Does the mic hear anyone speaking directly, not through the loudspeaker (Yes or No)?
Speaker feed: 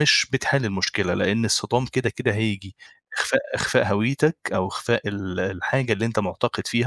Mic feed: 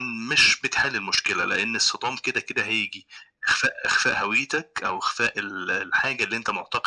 No